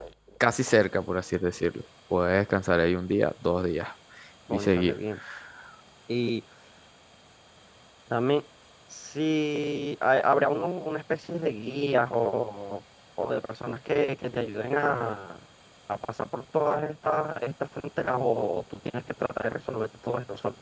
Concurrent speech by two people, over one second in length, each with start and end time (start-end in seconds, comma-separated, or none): none